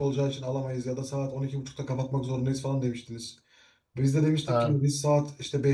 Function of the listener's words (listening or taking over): listening